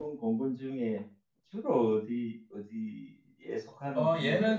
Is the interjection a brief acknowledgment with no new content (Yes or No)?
No